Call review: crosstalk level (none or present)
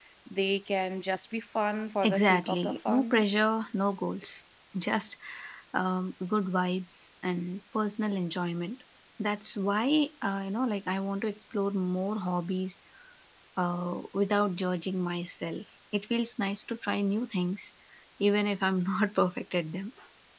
present